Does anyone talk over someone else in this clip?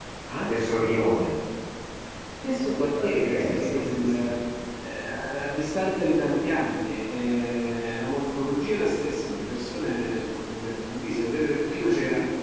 Yes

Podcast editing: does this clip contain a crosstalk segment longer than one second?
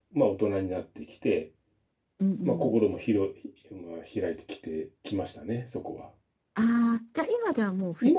No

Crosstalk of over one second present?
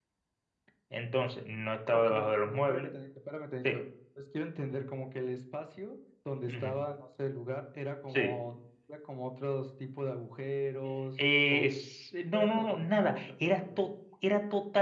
Yes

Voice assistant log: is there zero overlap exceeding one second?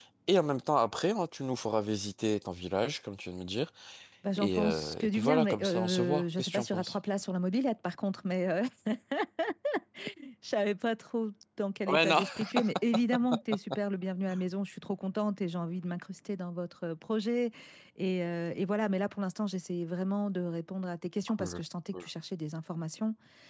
No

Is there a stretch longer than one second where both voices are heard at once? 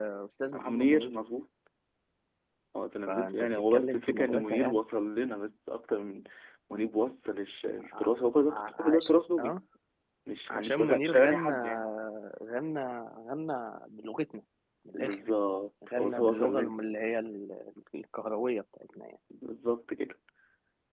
Yes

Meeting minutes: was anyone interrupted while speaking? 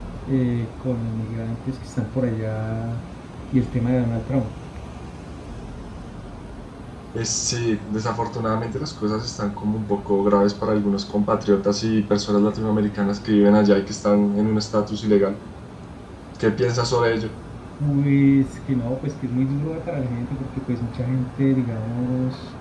No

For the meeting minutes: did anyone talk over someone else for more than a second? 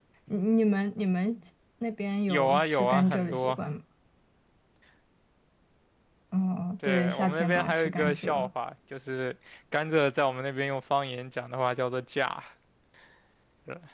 Yes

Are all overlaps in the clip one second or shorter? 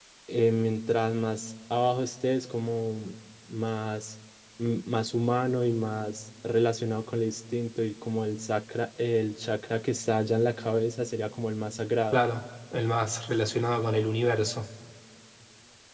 Yes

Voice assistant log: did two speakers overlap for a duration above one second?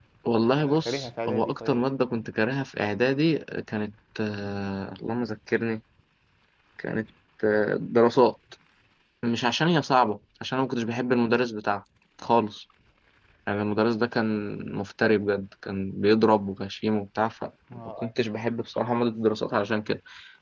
Yes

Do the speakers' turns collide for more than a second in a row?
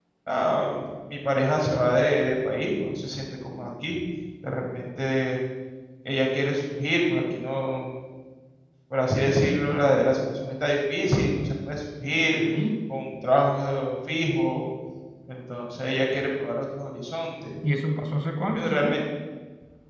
No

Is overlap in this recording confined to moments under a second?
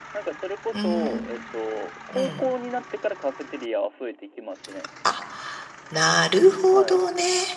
Yes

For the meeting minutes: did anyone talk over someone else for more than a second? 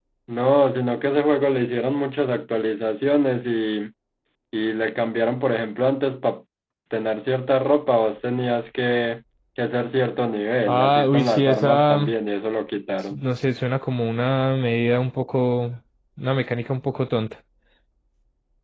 Yes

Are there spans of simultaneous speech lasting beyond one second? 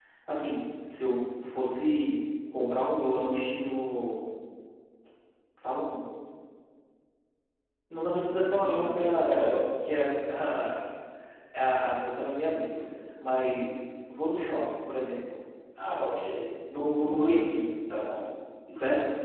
Yes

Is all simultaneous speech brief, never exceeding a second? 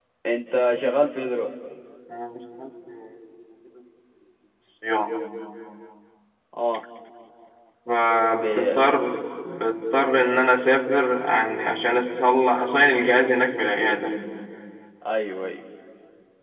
Yes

